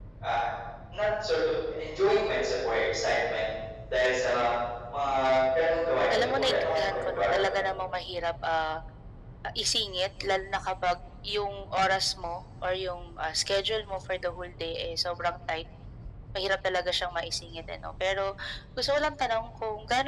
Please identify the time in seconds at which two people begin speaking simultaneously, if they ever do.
6.1 s

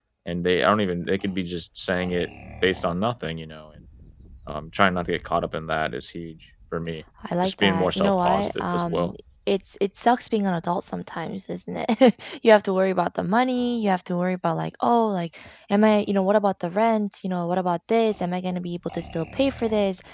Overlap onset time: 7.2 s

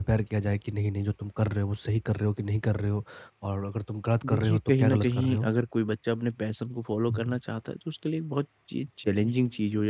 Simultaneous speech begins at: 4.3 s

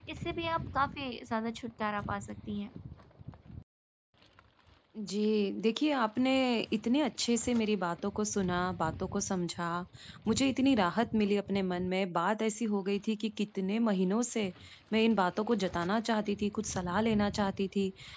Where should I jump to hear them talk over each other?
none

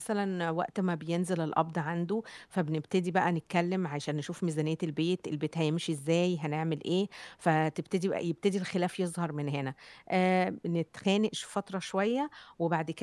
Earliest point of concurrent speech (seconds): none

